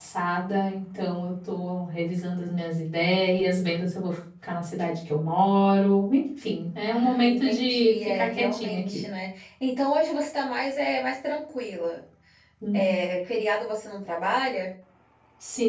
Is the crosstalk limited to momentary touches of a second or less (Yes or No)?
No